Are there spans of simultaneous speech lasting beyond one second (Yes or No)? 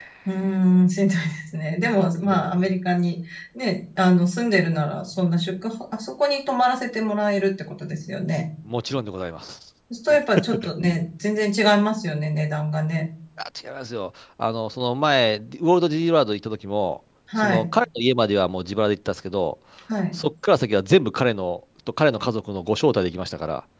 No